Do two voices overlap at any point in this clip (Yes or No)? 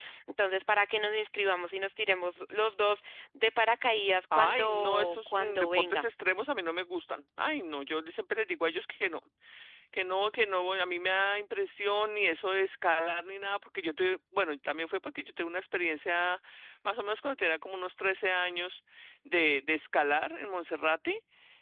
Yes